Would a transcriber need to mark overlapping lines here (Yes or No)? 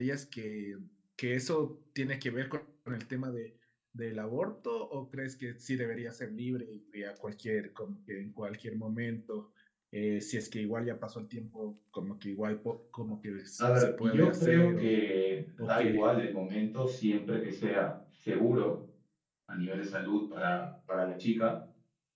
Yes